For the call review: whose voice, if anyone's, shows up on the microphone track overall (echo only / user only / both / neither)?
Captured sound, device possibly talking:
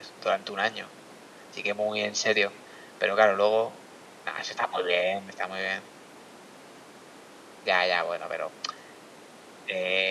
user only